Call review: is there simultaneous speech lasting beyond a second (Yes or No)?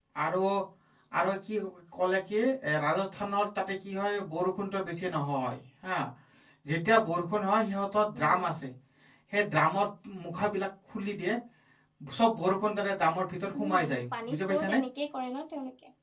Yes